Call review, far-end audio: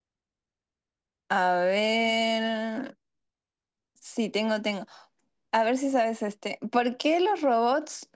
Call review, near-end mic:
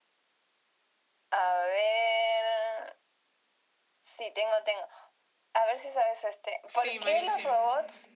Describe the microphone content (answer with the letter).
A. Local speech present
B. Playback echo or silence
A